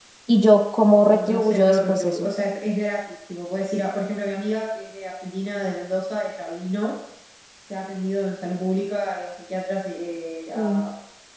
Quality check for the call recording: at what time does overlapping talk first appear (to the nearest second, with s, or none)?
1 s